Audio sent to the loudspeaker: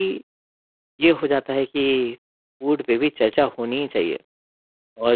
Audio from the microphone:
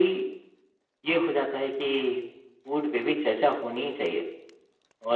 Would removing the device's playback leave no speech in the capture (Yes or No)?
Yes